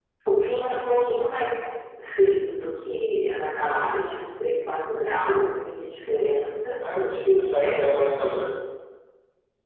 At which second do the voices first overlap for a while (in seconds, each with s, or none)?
6.8 s